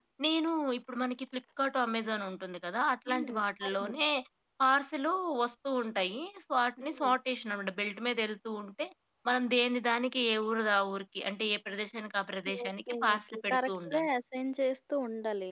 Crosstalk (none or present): present